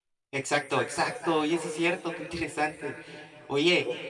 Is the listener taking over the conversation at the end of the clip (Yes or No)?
No